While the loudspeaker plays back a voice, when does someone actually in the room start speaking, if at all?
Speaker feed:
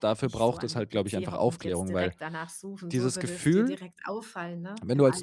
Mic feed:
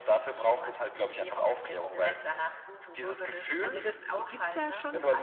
3.6 s

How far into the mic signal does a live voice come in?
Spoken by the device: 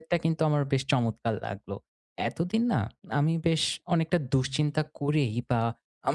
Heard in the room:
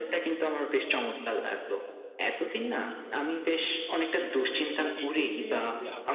4.2 s

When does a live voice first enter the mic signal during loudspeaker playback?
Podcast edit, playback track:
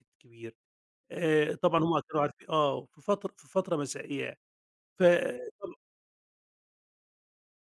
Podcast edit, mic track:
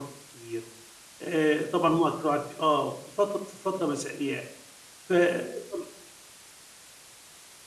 none

